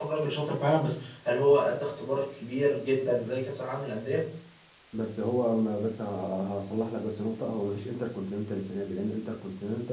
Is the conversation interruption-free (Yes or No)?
Yes